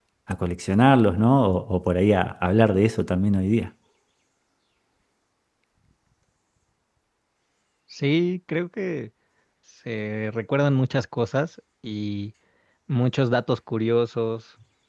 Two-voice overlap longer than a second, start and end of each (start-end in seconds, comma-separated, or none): none